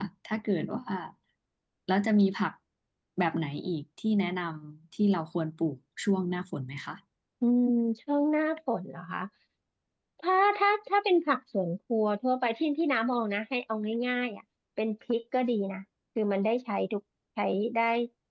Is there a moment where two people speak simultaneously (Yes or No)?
No